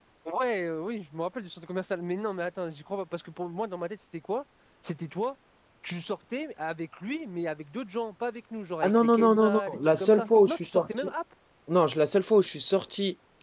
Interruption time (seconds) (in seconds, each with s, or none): 8.8 s